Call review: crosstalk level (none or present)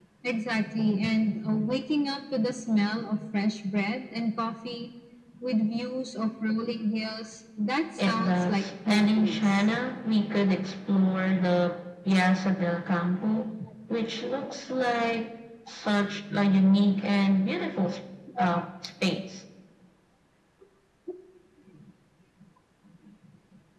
present